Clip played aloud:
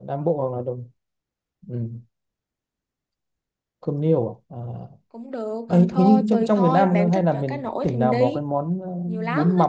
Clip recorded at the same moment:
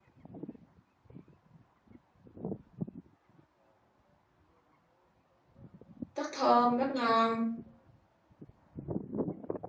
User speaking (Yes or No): Yes